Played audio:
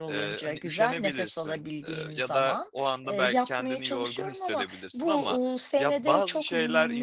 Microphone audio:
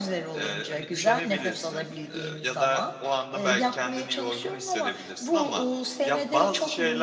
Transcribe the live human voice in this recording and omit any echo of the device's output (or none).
none